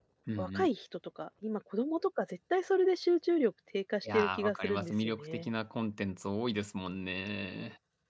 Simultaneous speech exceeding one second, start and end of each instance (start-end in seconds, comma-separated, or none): 4.1-5.5